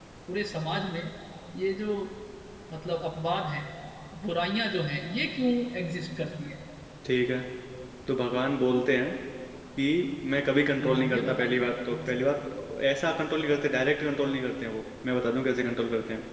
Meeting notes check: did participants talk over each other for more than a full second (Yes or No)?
Yes